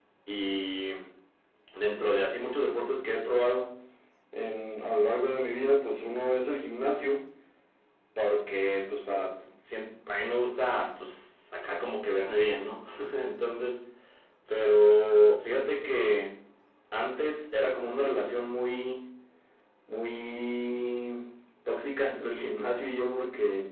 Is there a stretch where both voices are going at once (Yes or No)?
No